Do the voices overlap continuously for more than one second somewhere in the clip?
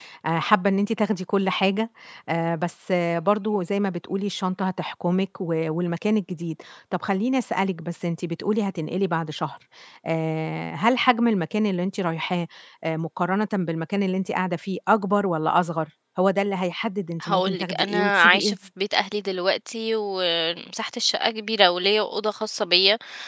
Yes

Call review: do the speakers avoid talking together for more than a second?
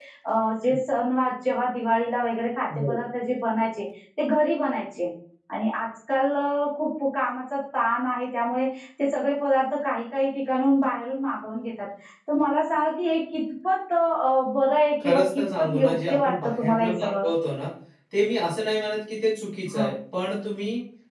No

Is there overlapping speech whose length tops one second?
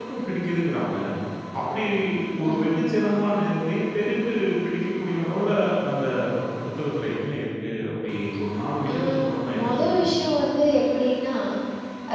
Yes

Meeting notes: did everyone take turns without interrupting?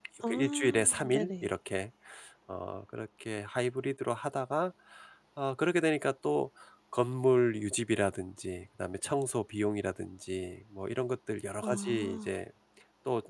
No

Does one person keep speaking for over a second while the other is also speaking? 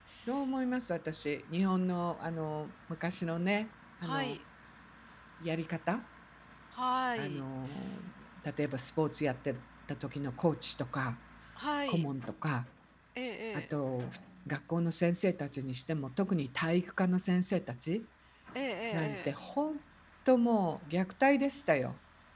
No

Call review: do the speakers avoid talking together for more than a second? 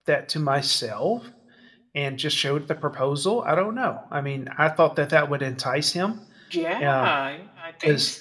Yes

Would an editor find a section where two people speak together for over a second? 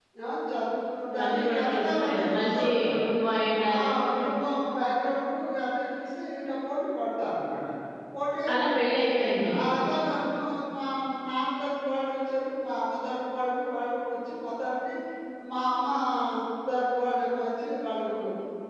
Yes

